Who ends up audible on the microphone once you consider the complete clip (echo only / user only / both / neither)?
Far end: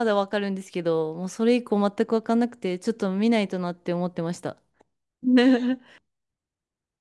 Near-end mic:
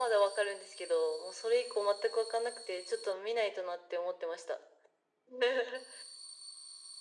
echo only